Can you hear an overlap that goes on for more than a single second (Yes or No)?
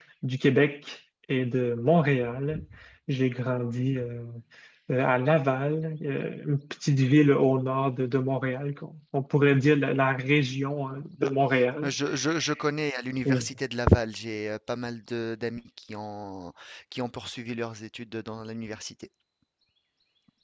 No